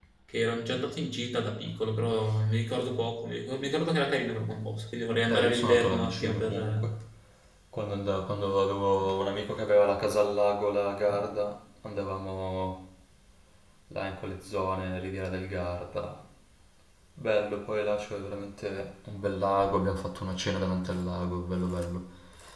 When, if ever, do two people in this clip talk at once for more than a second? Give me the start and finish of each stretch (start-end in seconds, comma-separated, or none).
5.3-6.8